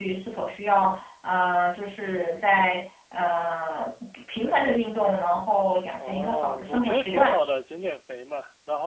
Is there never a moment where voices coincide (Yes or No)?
No